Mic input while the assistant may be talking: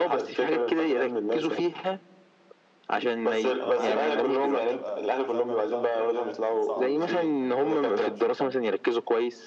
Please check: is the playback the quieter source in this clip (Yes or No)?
No